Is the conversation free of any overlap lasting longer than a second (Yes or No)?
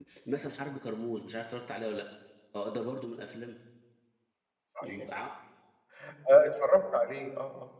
Yes